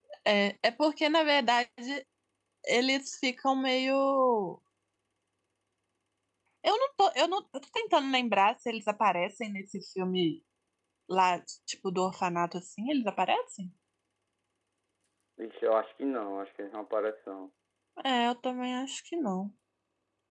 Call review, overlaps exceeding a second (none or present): none